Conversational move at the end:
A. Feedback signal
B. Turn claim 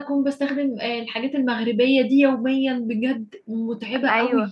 B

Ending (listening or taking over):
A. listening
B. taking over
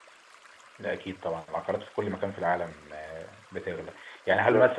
A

